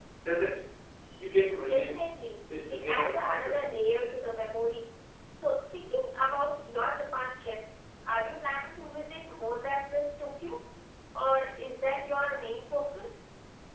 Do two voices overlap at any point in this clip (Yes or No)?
Yes